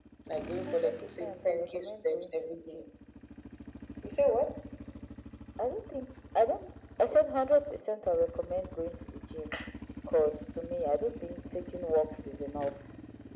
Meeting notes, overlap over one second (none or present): present